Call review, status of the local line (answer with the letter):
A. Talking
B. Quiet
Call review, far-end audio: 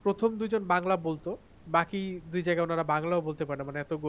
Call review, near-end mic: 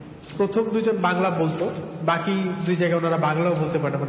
B